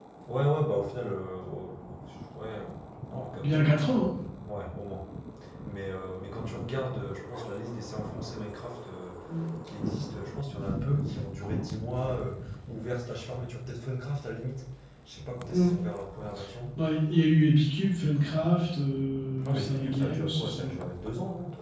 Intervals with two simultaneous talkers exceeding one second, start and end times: 19.4-20.8

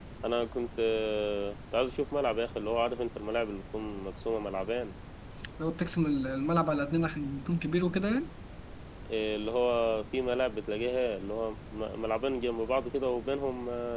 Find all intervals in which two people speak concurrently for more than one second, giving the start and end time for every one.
none

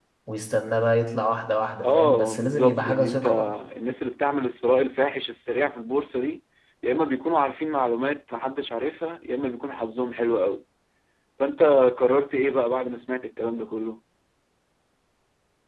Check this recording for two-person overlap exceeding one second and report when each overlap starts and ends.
1.8-3.2

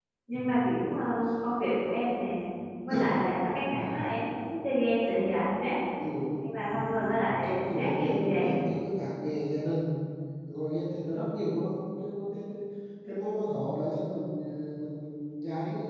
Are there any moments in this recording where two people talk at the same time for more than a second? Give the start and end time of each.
6.4-8.6

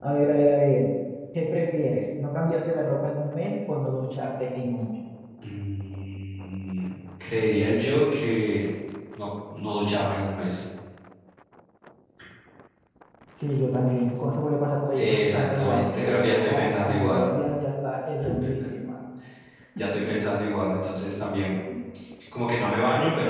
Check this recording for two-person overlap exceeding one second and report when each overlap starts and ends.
15.0-17.3

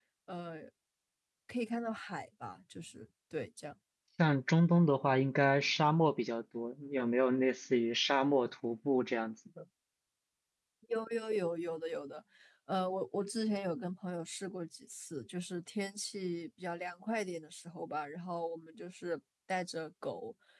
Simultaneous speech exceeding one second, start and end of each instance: none

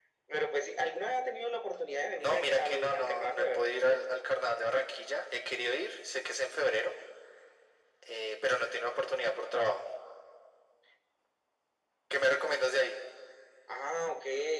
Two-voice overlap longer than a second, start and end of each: 2.2-4.0

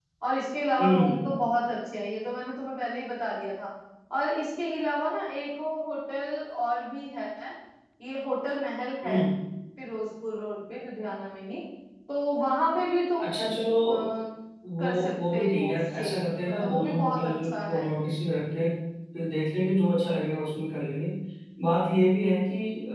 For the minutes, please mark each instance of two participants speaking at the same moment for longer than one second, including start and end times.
14.8-16.1, 16.5-17.9

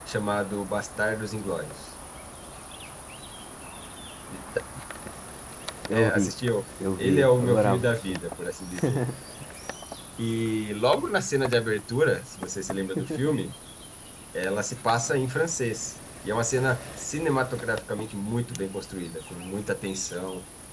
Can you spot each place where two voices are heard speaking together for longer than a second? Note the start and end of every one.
7.0-8.2

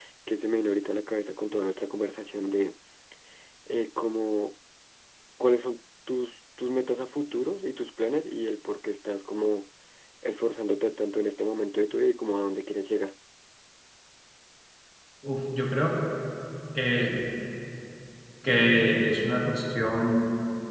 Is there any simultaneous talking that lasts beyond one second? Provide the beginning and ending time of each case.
none

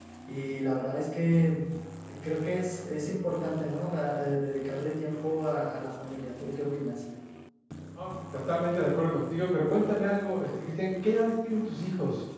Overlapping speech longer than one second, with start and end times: none

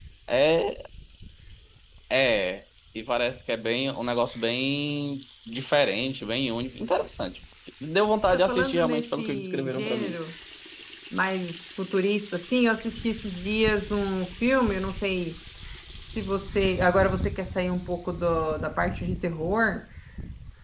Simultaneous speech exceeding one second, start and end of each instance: 8.3-10.2

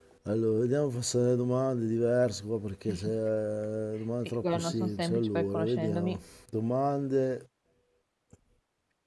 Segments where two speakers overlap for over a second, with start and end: 4.3-6.2

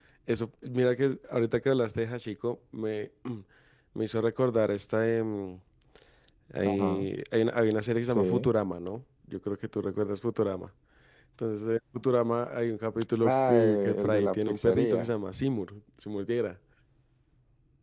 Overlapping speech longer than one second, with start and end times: 13.2-15.1

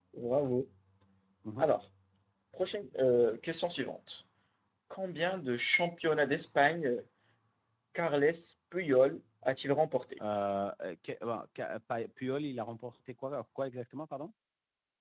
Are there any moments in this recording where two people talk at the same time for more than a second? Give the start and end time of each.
none

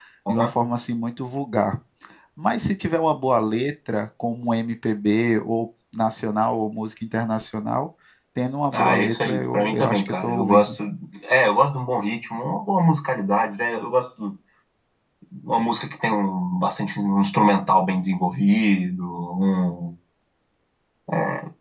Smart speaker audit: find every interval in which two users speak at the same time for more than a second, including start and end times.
8.7-10.7

